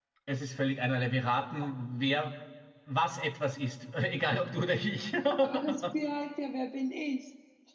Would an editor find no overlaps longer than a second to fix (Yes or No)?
Yes